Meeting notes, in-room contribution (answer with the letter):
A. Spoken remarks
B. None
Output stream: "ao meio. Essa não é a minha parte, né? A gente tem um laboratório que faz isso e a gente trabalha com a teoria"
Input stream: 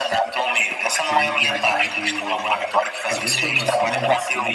A